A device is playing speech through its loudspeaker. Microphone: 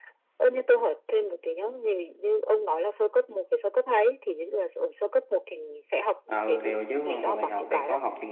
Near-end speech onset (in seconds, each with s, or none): 6.3 s